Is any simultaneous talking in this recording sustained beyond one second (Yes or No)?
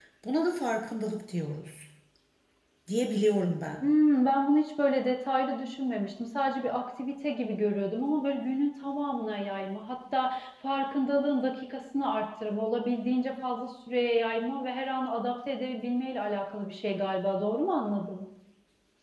No